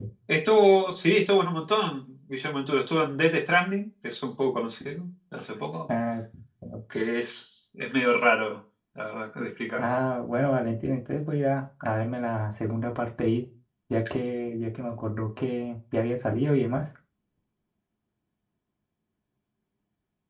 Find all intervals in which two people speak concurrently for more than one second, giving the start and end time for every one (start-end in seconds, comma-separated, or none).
none